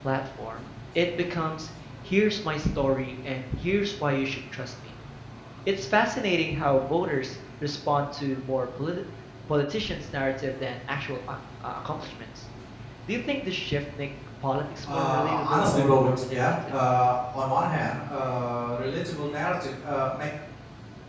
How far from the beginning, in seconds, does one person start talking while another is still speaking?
14.8 s

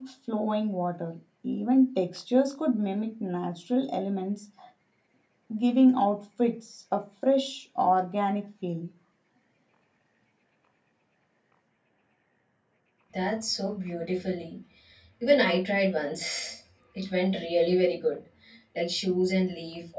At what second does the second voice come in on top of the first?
none

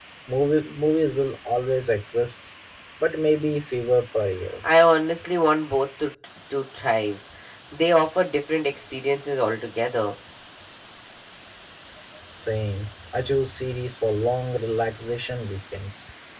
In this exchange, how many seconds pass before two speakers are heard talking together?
none

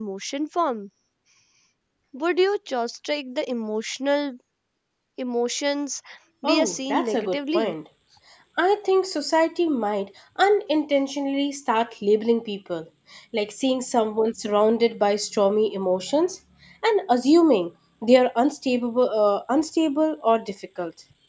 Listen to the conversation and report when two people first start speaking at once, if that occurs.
6.4 s

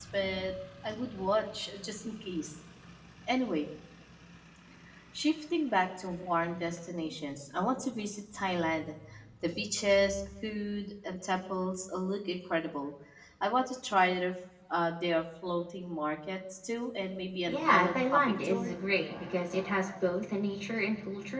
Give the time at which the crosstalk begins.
17.4 s

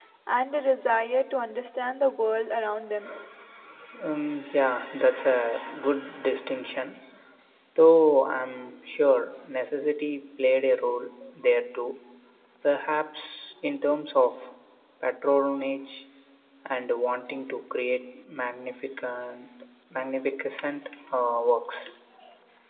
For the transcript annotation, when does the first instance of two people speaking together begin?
none

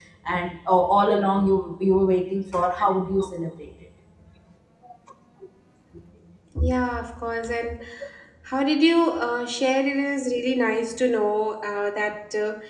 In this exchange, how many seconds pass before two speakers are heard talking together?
none

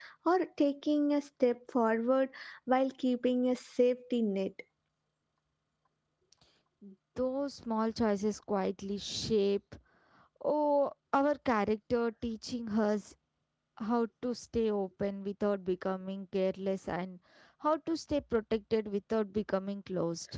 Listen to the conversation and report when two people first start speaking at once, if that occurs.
none

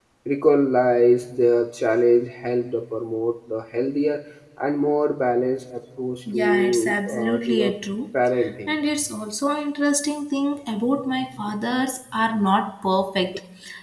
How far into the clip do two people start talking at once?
6.3 s

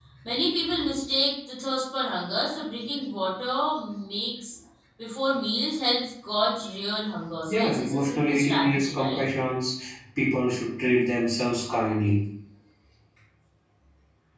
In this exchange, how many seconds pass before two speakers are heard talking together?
7.4 s

